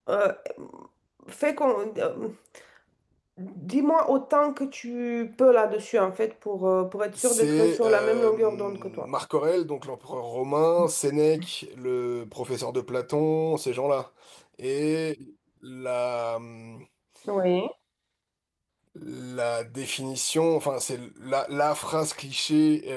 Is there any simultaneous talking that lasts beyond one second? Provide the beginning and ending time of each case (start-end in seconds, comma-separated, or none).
7.2-9.1